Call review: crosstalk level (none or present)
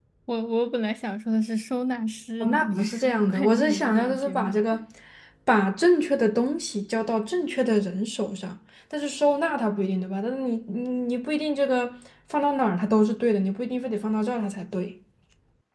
present